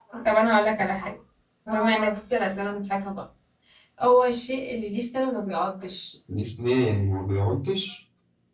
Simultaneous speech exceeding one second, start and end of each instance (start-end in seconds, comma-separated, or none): none